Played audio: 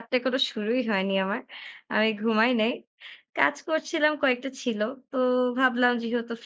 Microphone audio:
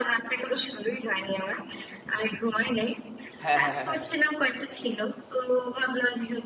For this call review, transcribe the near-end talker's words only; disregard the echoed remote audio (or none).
হ্যাঁ, হ্যাঁ, হ্যাঁ,